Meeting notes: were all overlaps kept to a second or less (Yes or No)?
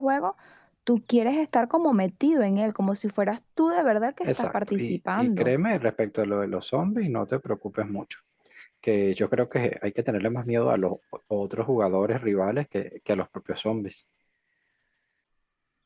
No